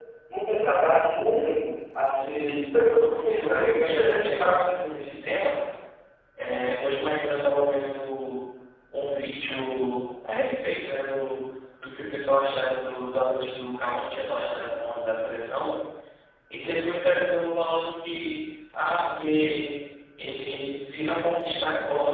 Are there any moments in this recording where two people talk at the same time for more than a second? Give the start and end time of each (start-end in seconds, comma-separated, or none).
3.3-4.6